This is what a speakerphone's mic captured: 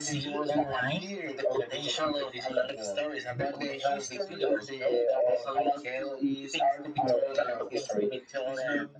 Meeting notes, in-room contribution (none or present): none